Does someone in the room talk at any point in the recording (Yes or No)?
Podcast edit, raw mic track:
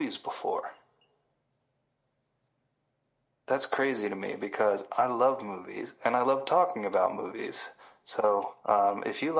No